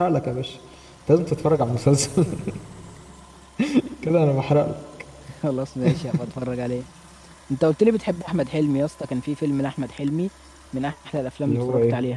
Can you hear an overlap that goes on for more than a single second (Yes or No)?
No